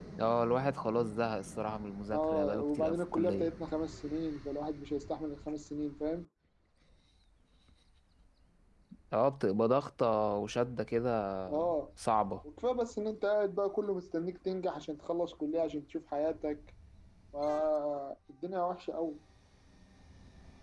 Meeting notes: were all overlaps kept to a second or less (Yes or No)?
No